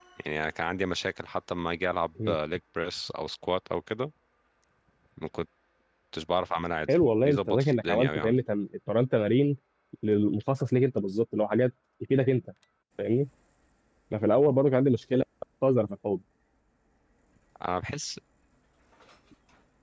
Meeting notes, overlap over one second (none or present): present